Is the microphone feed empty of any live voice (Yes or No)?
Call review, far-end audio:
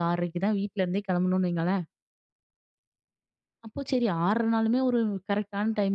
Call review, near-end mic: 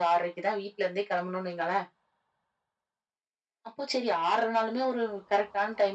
Yes